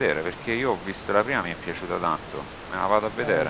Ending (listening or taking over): taking over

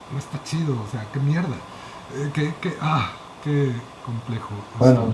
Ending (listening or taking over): taking over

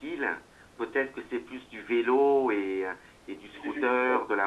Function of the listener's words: taking over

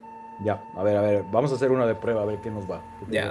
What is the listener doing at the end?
taking over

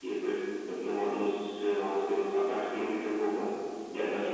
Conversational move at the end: taking over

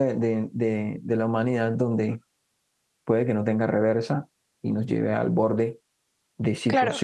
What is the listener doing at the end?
listening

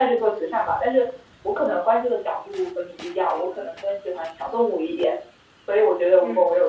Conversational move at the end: listening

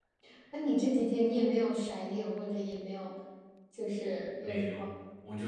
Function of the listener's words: taking over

